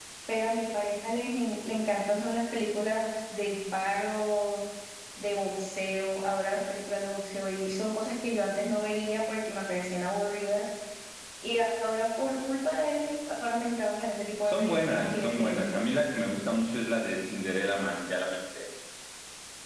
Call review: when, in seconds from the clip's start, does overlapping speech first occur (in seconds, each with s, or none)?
14.5 s